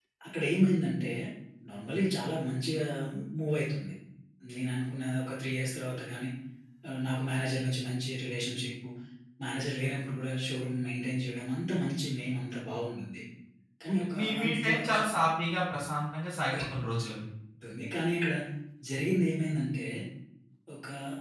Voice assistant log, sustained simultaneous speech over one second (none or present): present